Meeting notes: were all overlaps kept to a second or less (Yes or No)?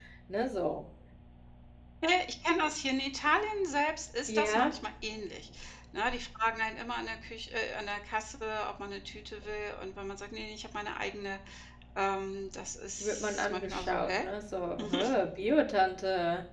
No